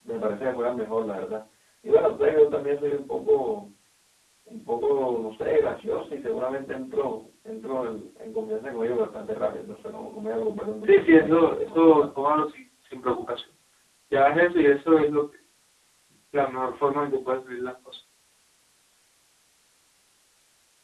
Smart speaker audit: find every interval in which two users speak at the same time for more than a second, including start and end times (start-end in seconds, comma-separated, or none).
10.8-12.1